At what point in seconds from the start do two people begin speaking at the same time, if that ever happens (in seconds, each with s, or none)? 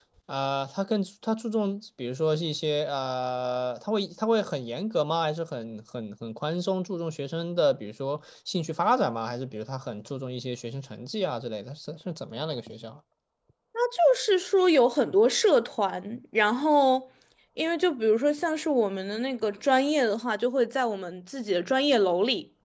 none